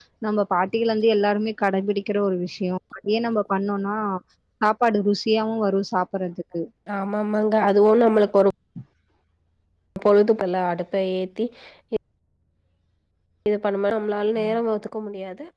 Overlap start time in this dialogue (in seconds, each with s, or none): none